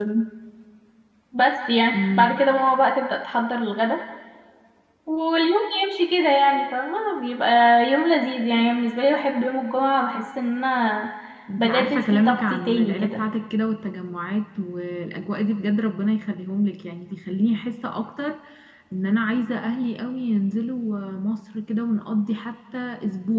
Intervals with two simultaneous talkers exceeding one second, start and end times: 11.6-13.2

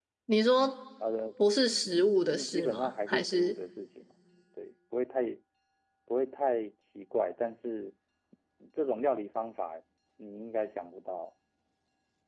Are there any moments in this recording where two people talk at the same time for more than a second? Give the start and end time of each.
1.9-3.5

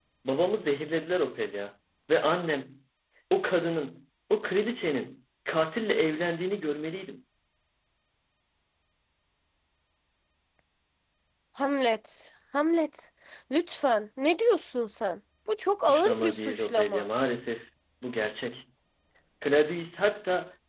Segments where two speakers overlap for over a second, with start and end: 15.8-17.1

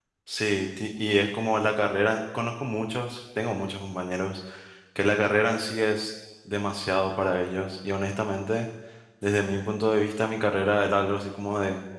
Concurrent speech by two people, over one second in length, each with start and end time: none

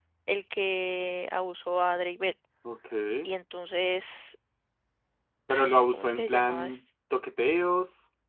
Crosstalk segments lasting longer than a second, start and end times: 5.5-6.8

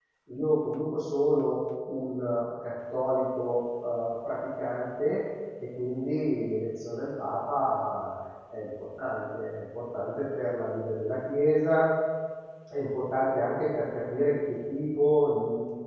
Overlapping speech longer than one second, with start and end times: none

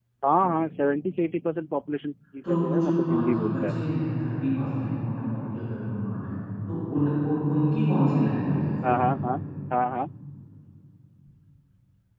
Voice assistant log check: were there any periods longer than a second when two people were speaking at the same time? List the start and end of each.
2.4-3.7

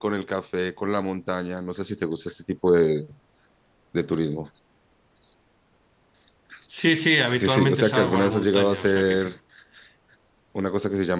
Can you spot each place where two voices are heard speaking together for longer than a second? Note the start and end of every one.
7.4-9.3

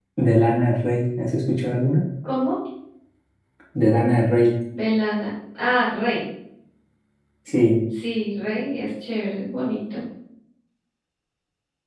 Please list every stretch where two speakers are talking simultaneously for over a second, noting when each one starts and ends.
none

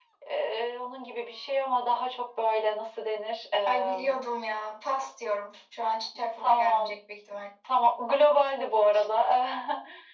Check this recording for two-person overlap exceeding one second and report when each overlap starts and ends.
none

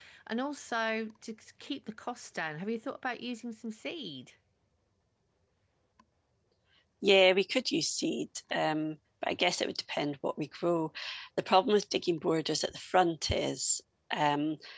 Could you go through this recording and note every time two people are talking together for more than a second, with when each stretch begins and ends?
none

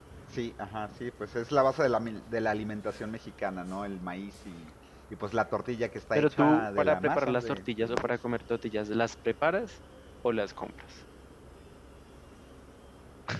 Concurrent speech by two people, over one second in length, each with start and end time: 6.1-8.1

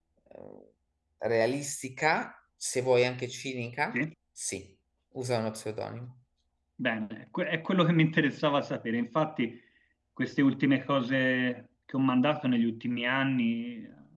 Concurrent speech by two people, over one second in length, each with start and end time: none

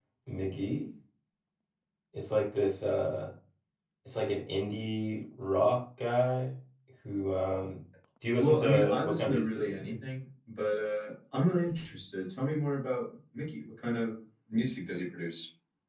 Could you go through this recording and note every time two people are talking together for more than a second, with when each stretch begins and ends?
8.4-9.9

